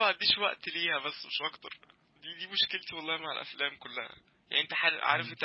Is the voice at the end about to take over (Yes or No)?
No